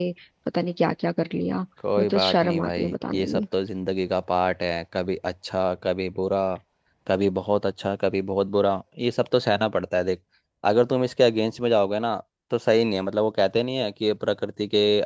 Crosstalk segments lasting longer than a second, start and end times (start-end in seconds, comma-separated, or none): 2.0-3.2